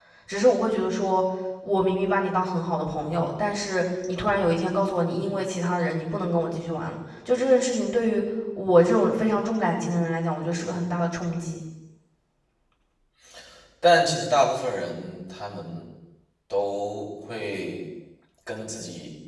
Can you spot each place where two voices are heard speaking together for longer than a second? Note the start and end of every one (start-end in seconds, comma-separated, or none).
none